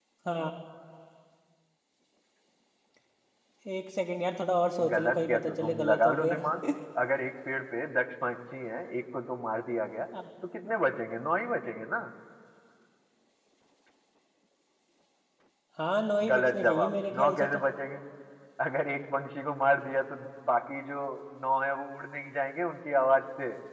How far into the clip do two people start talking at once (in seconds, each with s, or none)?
4.9 s